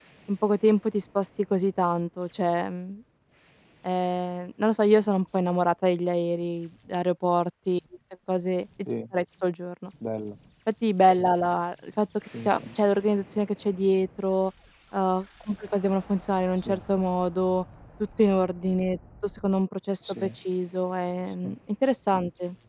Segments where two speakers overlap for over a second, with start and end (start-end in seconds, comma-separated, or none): none